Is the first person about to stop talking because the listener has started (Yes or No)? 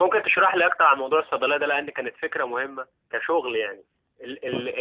No